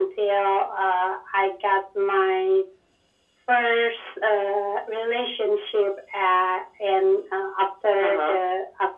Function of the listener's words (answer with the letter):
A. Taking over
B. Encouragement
B